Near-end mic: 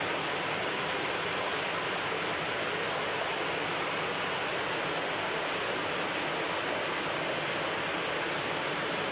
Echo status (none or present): none